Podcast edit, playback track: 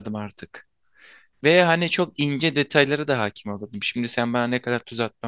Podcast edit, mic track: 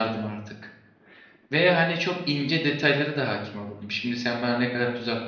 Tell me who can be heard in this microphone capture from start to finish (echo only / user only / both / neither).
echo only